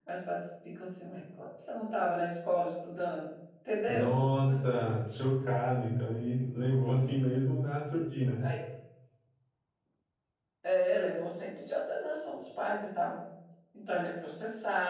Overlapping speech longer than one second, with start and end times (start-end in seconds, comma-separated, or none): none